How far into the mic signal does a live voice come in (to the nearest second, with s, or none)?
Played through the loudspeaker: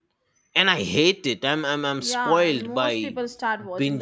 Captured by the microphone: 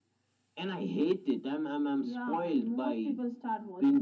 none